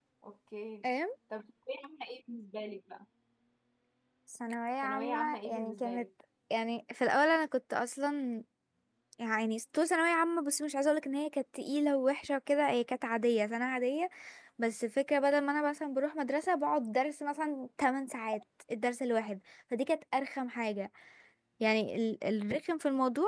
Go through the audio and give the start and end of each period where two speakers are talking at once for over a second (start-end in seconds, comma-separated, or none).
4.8-6.0